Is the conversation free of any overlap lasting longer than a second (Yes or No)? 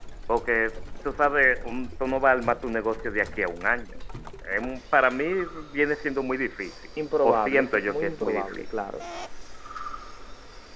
No